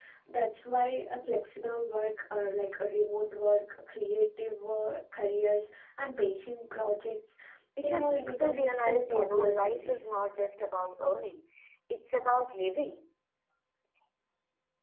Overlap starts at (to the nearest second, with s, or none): 8 s